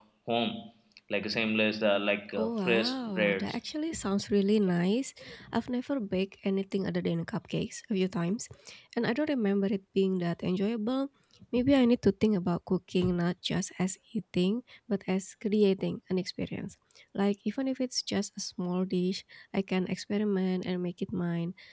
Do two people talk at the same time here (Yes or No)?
Yes